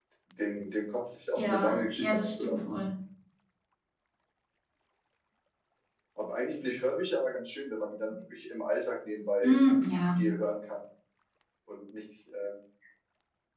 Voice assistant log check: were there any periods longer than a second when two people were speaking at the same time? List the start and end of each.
1.4-2.6

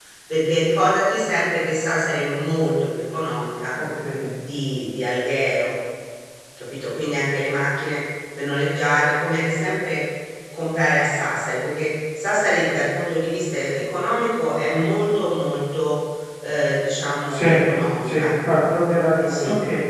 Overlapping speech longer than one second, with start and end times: none

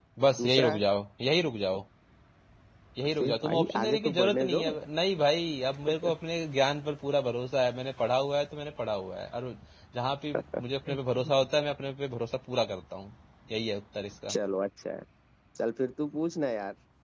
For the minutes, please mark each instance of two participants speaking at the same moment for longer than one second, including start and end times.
3.0-4.8

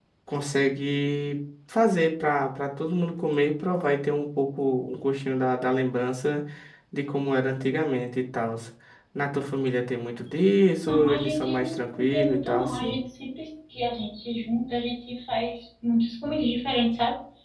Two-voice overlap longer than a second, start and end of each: 10.9-13.0

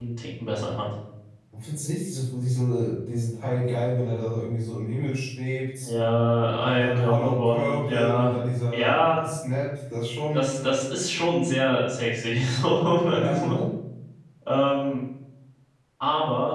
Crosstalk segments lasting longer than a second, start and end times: 6.7-8.3

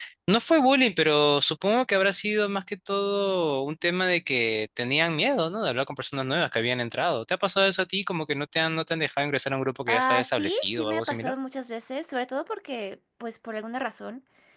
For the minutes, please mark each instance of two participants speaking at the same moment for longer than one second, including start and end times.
9.9-11.3

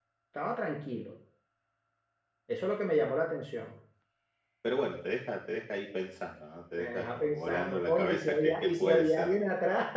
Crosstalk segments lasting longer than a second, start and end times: 6.8-9.4

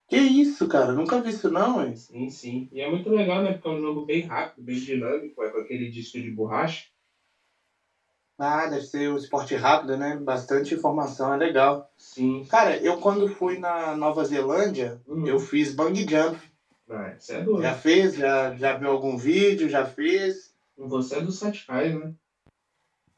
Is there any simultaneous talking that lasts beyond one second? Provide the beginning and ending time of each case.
none

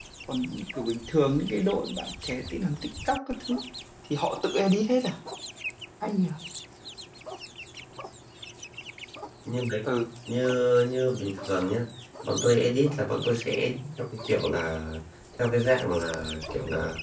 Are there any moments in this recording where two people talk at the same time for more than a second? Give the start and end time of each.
none

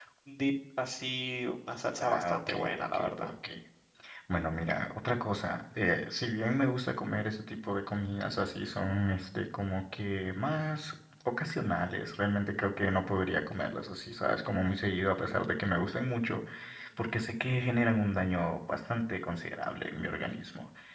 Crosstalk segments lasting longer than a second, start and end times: 2.0-3.3

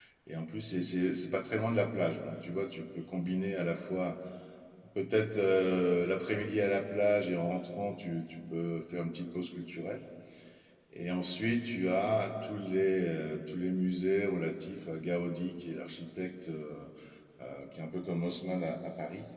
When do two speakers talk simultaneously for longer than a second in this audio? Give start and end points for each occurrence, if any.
none

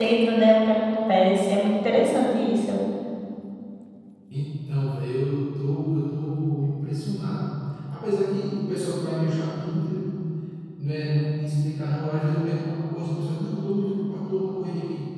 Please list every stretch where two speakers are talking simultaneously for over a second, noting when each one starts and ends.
none

